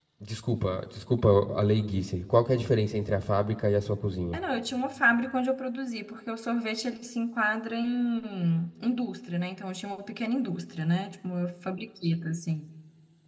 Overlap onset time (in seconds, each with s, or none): none